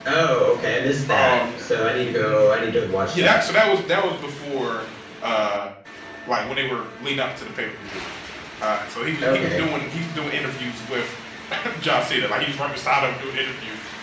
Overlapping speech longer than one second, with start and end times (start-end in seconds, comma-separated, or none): none